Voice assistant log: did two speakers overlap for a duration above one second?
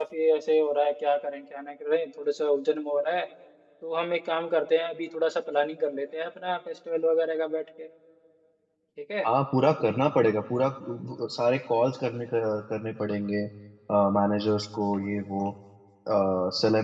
No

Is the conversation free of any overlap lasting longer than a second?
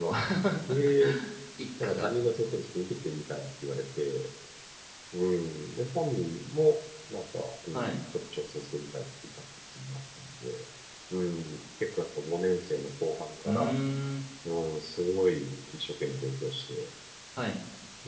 Yes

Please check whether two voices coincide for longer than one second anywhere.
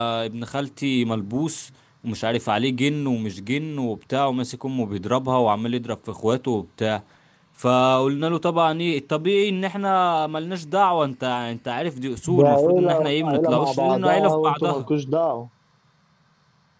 Yes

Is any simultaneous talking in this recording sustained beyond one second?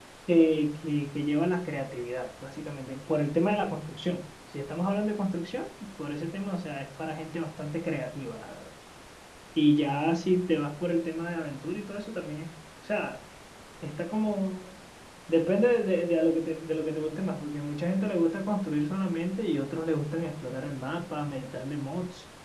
No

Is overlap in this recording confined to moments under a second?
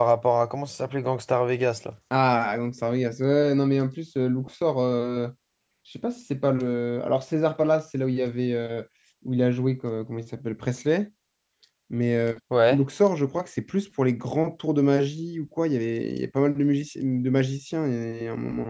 Yes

